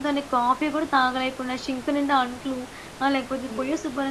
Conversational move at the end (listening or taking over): listening